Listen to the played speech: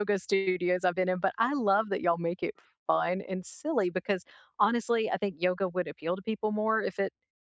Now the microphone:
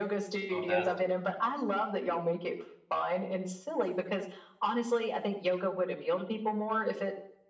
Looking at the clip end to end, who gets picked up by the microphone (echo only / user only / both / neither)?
both